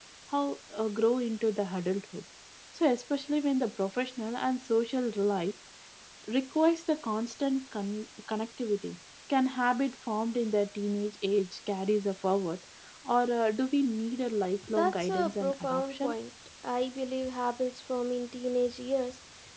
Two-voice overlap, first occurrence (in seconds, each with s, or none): 14.6 s